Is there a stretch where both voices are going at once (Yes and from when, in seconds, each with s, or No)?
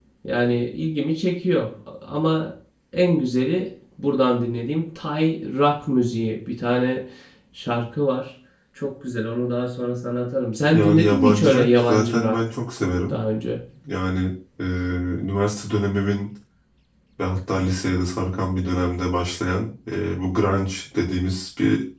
Yes, from 10.7 s